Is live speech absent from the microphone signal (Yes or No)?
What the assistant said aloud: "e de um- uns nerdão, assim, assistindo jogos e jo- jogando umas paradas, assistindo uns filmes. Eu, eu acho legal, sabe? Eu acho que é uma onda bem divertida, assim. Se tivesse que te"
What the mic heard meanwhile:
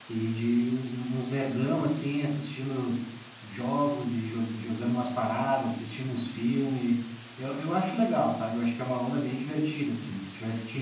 Yes